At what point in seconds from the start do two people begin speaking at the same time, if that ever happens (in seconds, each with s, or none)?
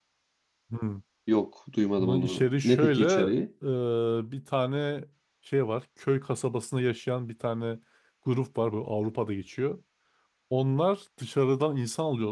2.0 s